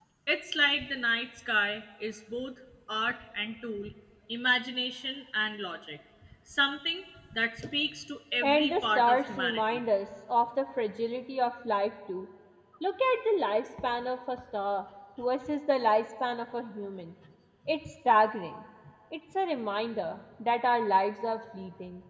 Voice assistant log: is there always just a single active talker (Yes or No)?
No